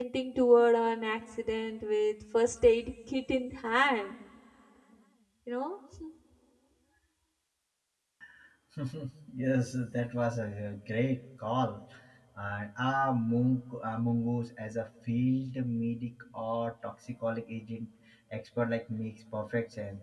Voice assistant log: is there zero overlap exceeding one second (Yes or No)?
Yes